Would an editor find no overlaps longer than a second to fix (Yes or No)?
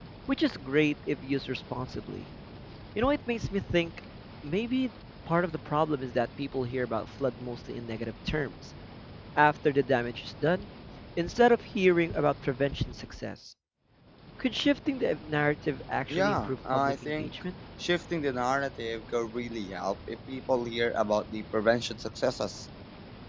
No